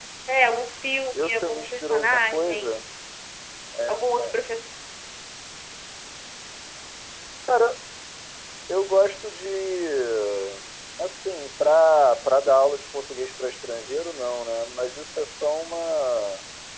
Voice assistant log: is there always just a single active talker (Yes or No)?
No